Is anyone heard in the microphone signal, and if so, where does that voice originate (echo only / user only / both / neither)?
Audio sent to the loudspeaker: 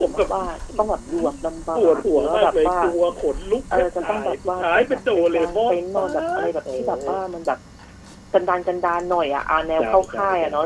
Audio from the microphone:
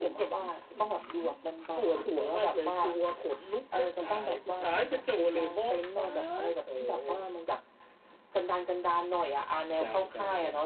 echo only